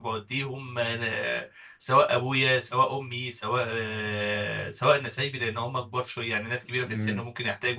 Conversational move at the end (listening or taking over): listening